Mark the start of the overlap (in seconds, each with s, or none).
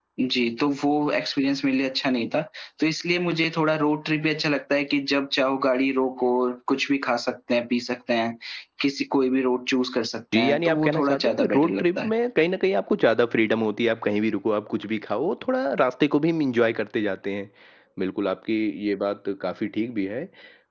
10.3 s